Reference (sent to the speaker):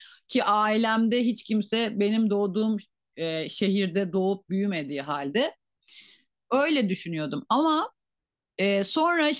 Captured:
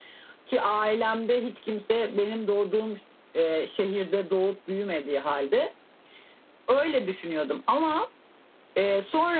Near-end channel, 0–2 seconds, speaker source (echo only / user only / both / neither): echo only